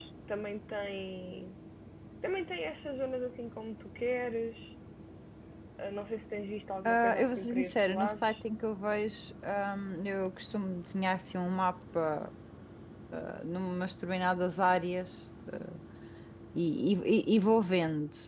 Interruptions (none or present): present